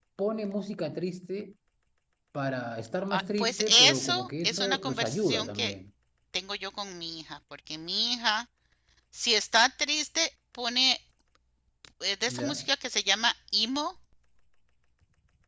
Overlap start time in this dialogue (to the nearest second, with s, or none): 3 s